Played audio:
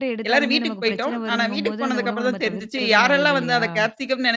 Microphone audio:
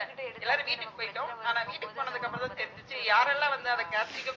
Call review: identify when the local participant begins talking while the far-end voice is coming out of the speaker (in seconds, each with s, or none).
none